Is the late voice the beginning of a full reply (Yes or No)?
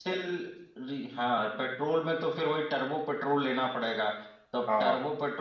No